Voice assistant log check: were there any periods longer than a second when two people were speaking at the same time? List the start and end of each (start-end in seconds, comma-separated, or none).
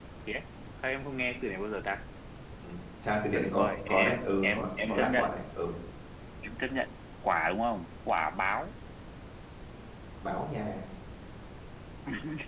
3.3-5.4